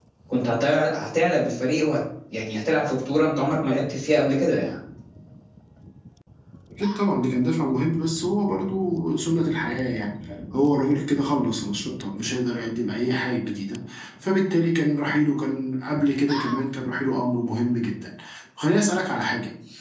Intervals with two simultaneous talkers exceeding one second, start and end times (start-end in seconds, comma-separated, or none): none